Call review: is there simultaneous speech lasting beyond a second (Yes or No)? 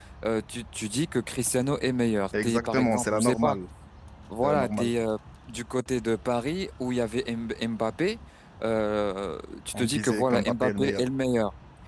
Yes